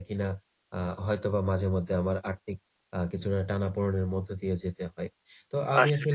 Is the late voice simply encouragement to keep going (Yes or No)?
Yes